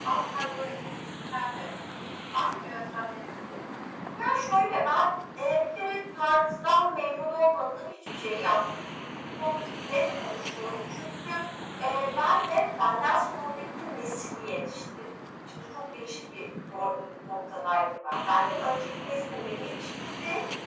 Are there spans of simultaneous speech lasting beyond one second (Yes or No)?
No